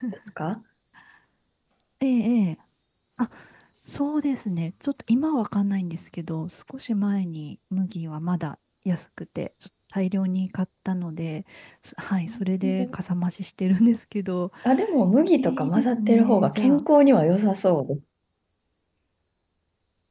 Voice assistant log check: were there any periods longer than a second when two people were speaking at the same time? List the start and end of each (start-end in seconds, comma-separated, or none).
15.4-16.9